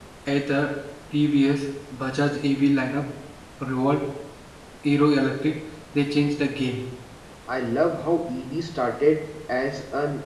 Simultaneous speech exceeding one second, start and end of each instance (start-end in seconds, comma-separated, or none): none